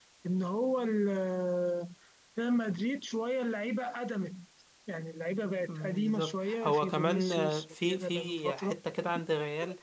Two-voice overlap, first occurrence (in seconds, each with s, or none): 5.7 s